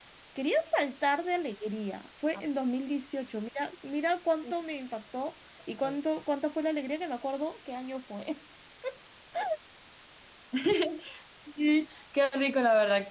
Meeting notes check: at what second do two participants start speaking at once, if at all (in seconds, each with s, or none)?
none